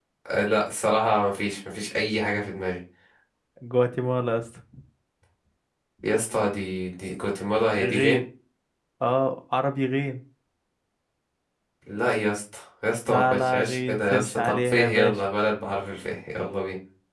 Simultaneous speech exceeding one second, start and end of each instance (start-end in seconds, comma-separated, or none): 13.1-15.2